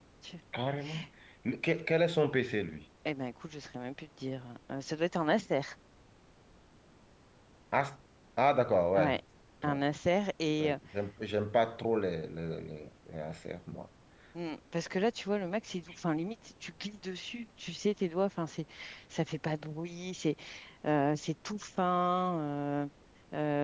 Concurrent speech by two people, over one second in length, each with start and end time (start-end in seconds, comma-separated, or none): none